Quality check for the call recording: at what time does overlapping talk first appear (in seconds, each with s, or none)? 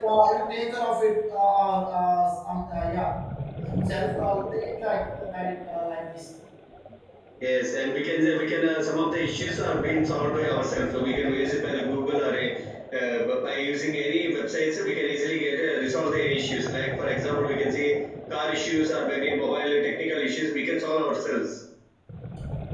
none